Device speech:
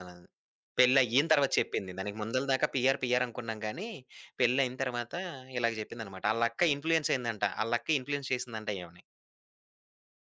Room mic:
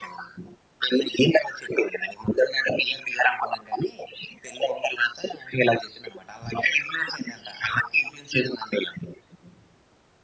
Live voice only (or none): none